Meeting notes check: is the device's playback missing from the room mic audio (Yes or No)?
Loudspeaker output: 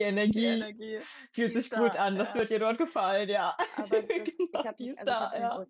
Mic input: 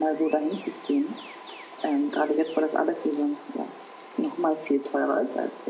Yes